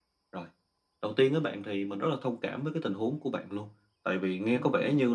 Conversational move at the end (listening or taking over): listening